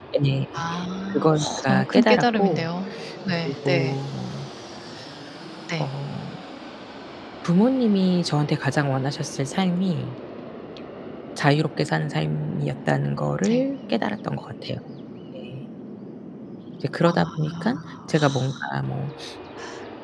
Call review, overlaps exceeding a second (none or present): present